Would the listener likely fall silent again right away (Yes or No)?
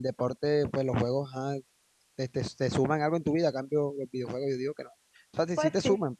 Yes